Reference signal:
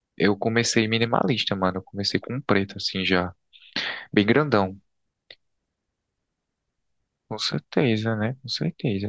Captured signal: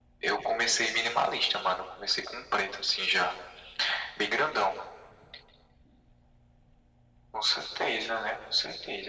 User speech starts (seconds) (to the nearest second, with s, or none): none